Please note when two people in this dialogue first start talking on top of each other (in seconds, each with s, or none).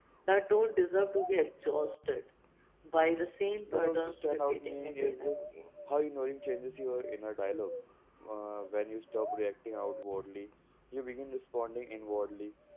3.7 s